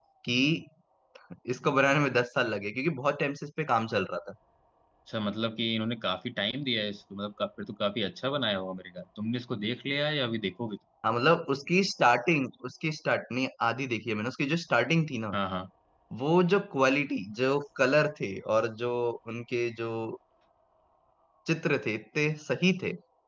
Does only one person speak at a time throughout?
Yes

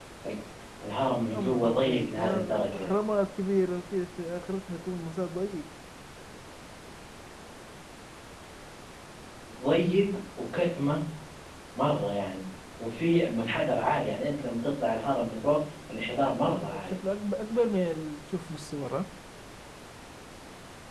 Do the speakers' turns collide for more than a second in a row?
Yes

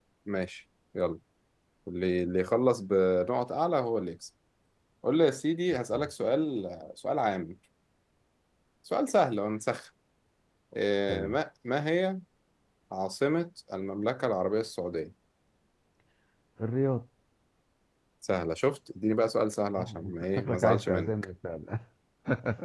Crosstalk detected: Yes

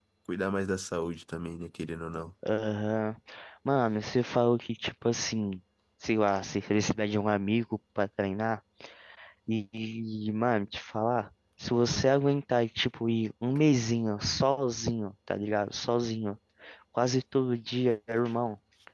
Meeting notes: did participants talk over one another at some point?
No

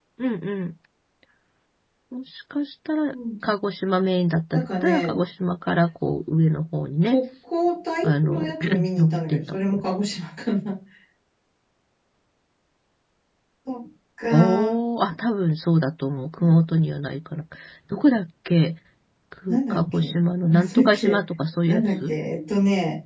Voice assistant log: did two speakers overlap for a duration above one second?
Yes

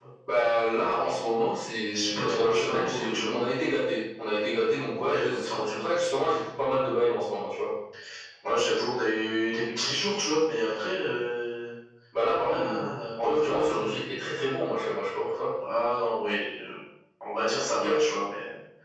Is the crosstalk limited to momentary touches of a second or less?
No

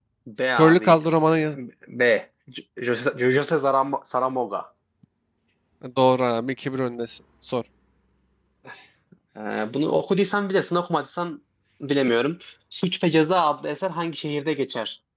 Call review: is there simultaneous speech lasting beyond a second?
No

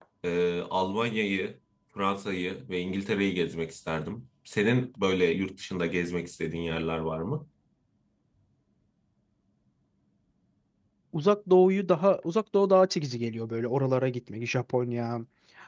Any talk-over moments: No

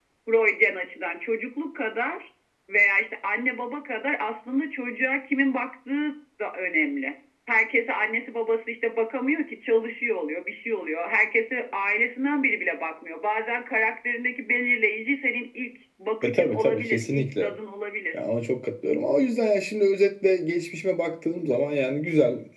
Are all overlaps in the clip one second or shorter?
No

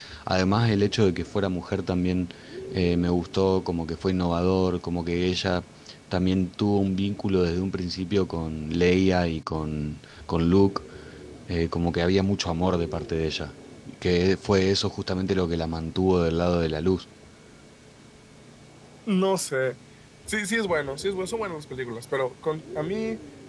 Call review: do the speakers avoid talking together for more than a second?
Yes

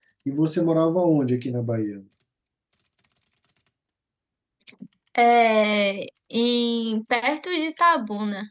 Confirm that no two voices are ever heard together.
Yes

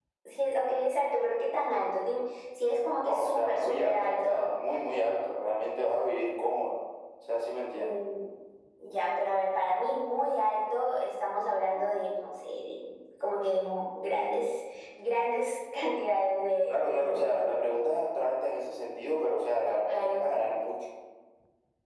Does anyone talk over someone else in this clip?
Yes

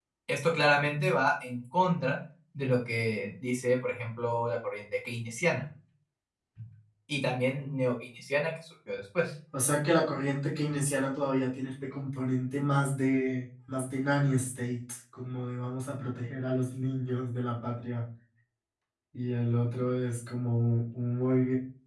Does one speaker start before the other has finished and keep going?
No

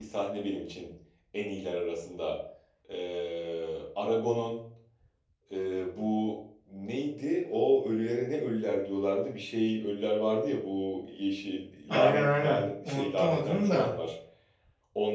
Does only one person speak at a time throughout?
No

